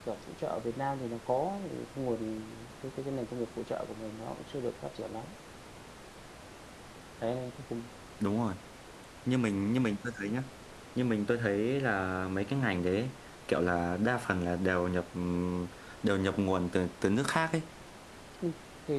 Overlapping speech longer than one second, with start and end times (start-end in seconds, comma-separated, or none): none